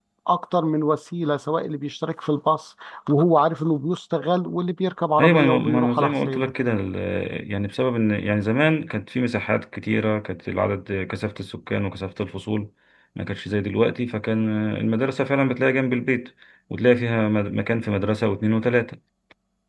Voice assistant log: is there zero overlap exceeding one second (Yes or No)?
No